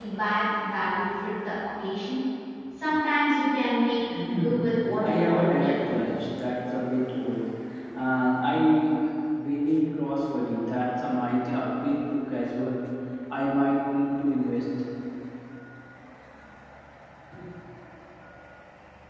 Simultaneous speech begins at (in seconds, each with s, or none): 4.1 s